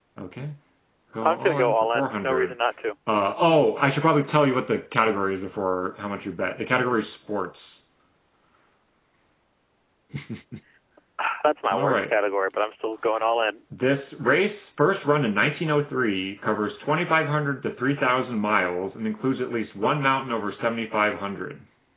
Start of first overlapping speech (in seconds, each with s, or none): 1.2 s